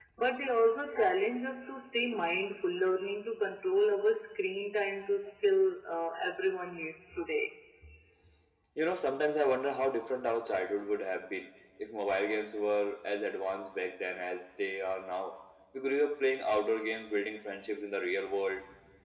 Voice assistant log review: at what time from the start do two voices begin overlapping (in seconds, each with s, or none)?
none